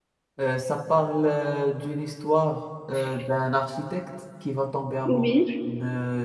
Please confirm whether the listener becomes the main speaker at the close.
No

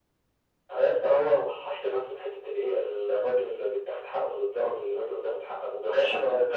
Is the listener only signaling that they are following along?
No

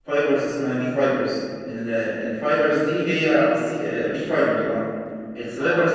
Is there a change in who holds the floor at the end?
Yes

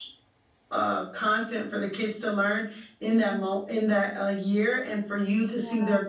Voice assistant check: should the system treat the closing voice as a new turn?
No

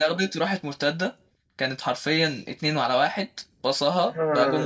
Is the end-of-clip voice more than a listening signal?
Yes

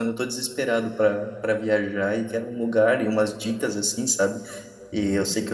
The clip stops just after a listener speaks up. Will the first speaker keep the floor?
Yes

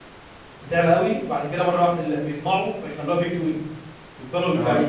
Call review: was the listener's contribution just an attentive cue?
Yes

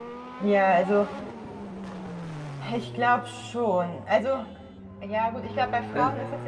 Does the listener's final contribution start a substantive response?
No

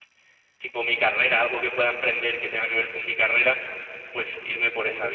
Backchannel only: No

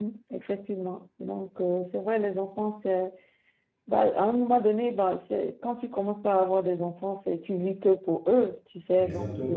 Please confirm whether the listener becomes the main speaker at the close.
No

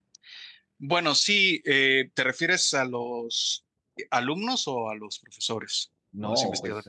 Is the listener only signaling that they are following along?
No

